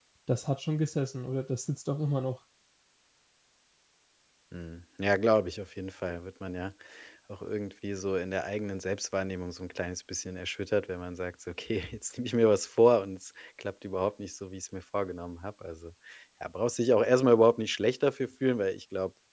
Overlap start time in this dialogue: none

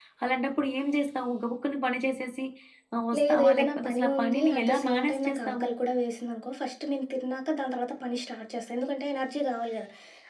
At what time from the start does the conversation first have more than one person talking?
3 s

